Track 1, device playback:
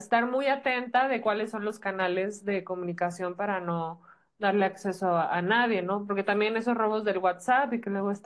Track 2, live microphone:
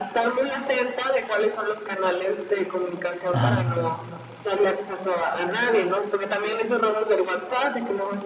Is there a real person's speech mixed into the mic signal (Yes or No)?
Yes